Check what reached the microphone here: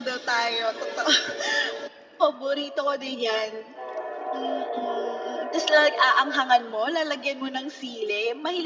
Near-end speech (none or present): none